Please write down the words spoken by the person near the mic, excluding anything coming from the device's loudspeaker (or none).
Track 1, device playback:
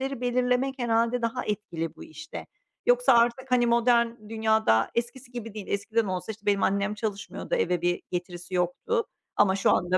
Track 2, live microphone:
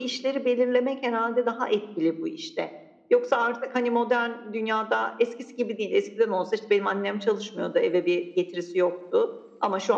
none